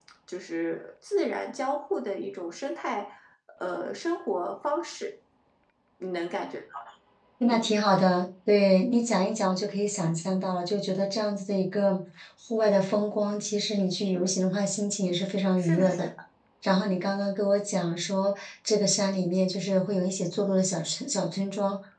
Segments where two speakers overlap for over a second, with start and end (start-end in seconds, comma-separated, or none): none